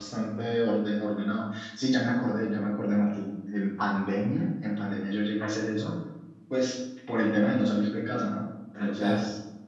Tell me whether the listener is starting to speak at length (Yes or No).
No